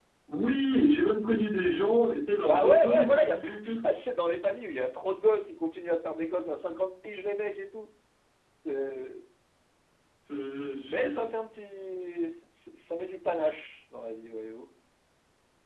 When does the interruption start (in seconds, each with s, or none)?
2.4 s